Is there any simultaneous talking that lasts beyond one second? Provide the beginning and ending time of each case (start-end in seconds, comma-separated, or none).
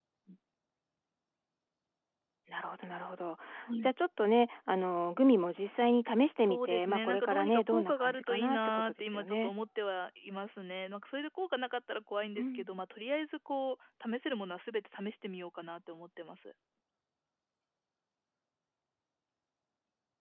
6.4-9.5